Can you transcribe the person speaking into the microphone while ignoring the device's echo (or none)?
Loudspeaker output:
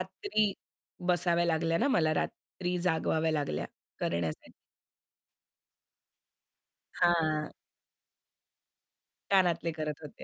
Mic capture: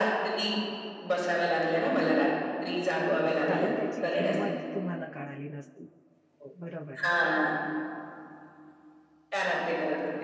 हो, कारण त्याची किंमत तुम्हाला कळाली नसती. हो, बरोबर आहे.